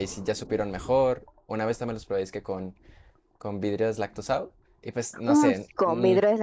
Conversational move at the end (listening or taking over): taking over